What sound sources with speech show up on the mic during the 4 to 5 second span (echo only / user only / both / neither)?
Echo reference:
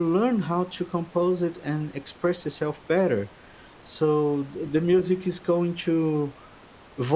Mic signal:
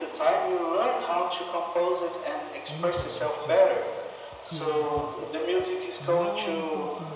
both